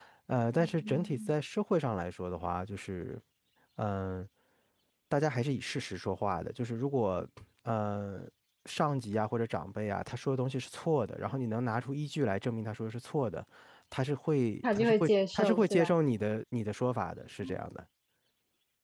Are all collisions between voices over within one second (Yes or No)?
No